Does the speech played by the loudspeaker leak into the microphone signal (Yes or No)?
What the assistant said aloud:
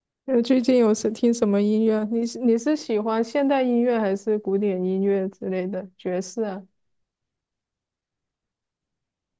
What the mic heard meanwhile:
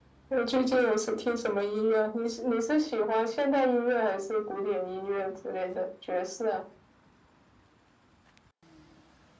Yes